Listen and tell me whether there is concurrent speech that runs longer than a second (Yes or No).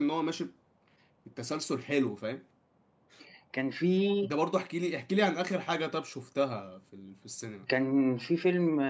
No